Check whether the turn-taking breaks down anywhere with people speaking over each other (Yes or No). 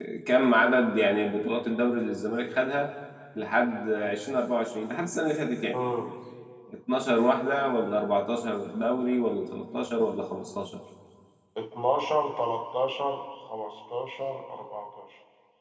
No